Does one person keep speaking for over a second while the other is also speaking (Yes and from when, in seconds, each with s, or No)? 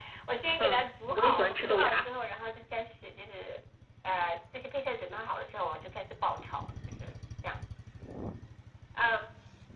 Yes, from 0.6 s